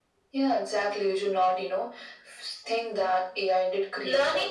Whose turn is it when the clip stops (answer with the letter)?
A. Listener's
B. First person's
A